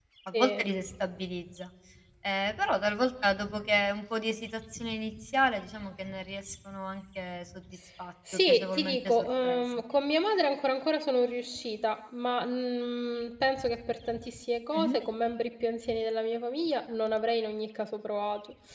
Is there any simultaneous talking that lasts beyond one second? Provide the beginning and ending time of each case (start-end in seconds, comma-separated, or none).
8.3-9.6